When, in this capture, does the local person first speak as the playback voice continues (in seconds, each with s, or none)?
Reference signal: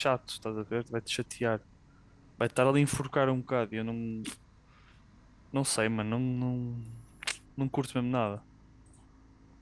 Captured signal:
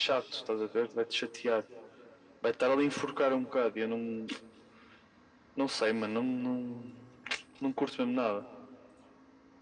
none